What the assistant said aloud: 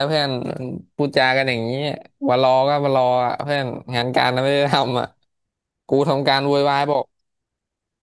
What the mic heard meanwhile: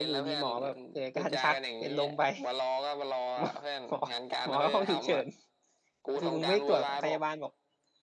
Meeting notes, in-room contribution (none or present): present